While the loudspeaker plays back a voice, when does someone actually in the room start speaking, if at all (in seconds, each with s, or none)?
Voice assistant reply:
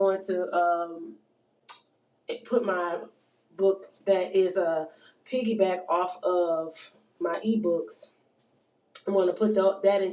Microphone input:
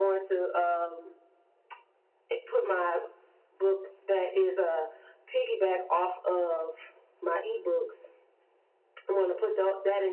none